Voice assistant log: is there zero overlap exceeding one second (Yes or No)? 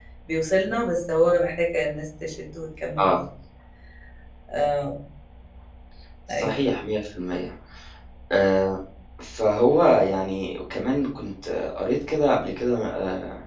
Yes